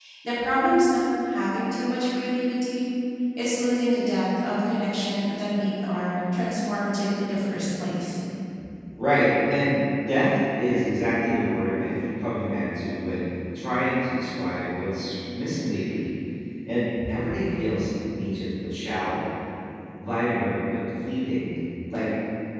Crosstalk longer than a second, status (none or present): none